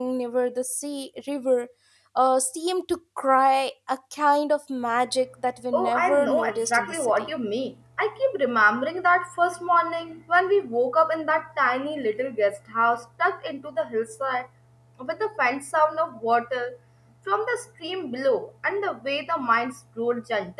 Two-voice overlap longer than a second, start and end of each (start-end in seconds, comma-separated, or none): 5.7-7.3